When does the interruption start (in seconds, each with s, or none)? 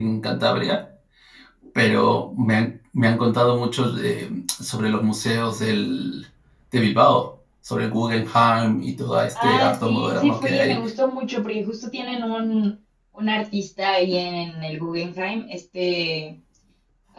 9.4 s